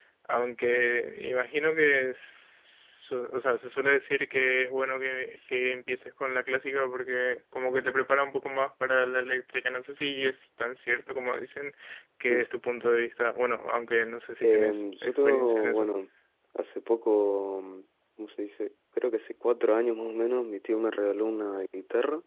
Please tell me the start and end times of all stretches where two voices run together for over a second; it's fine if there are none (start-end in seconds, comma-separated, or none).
14.4-15.9